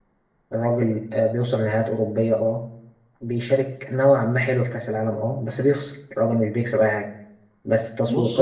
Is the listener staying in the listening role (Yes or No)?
Yes